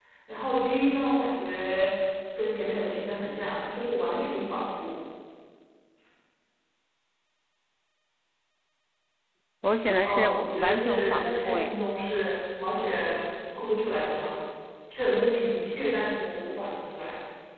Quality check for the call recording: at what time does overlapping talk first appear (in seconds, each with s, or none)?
10.0 s